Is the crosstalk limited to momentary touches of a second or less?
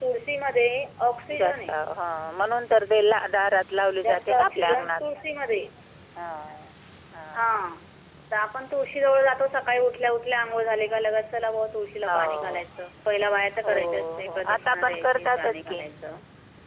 No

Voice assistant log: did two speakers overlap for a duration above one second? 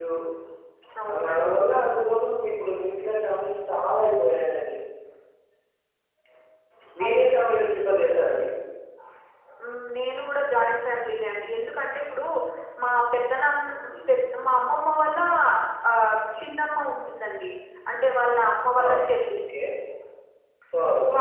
No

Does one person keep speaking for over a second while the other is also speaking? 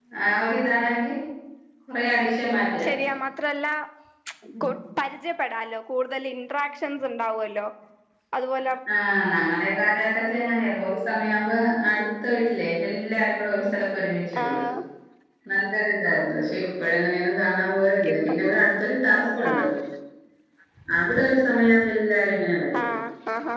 No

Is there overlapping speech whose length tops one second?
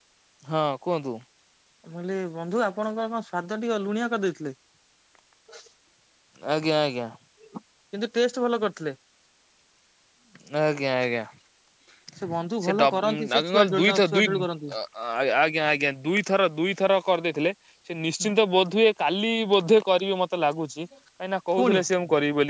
Yes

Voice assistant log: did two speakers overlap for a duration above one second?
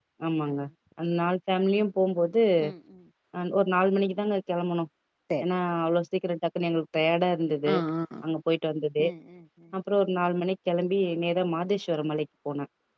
No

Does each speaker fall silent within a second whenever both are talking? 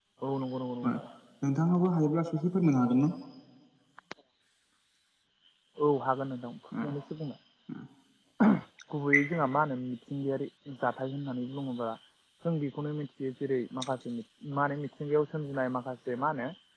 Yes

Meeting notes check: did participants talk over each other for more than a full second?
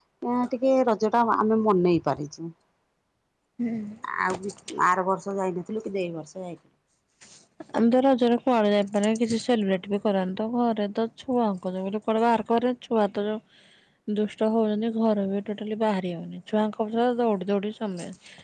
No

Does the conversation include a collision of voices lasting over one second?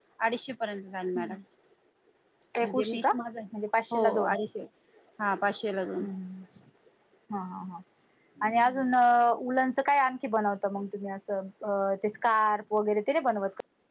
No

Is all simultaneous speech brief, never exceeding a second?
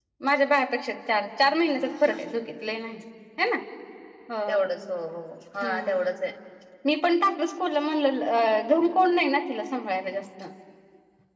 Yes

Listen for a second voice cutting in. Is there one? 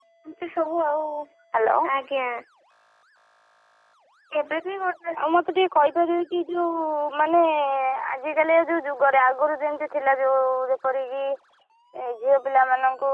No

